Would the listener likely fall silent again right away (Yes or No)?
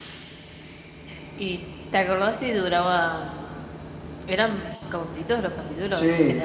No